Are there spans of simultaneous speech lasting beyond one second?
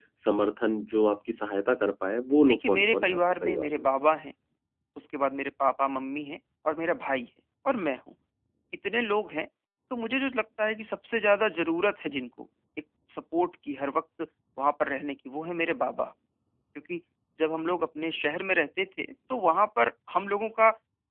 Yes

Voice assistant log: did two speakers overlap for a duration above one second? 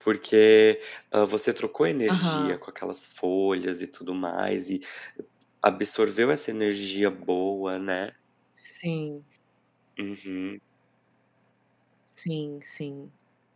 No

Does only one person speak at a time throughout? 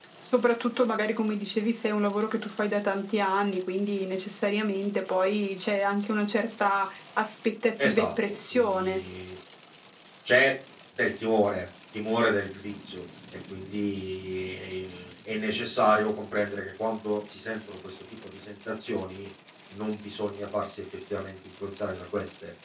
No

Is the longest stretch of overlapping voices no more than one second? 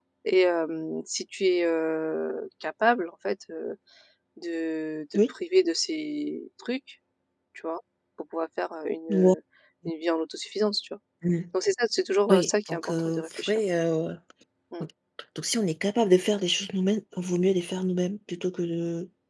No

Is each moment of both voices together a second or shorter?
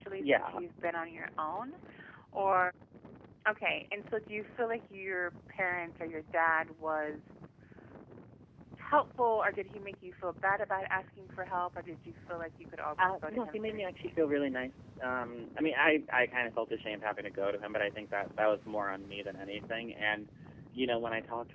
No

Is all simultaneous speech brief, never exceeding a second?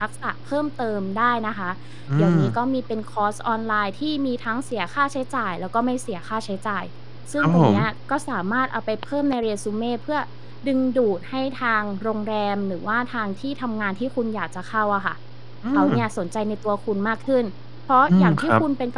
Yes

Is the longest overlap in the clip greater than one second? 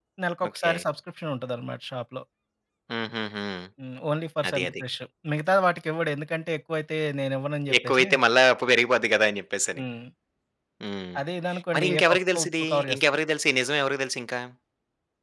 Yes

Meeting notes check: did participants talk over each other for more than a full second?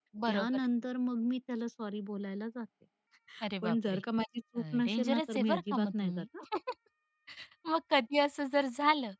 Yes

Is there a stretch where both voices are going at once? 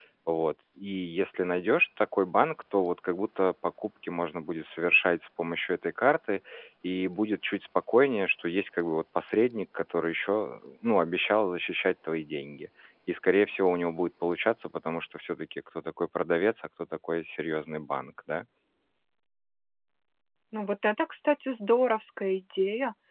No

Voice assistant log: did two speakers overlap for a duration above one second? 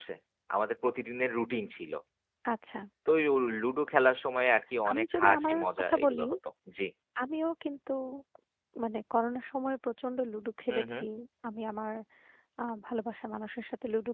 Yes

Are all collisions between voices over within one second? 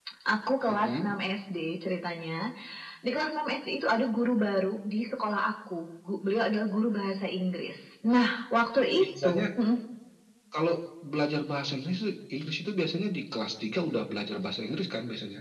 Yes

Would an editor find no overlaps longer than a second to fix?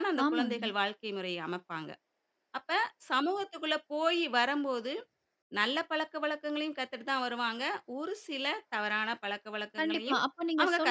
Yes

